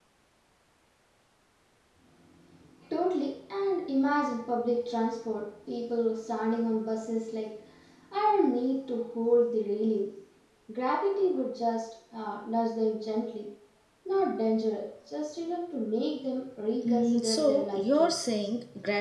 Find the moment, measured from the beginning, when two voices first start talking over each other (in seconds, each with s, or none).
16.9 s